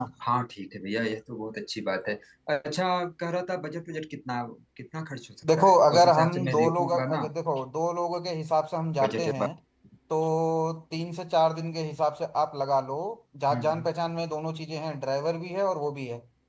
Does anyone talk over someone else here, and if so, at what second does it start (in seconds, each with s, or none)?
5.6 s